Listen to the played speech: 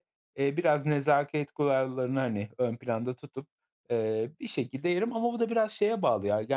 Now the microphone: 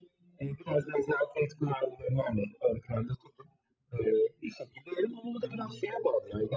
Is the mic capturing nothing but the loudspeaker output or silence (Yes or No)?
No